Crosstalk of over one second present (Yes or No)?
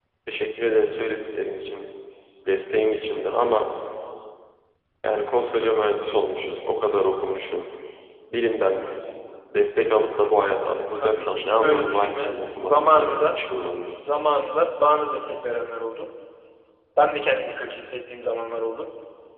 Yes